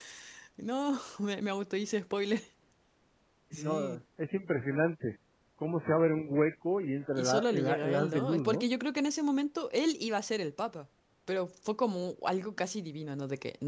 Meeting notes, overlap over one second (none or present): present